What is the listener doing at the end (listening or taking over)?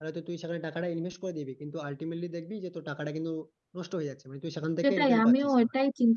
taking over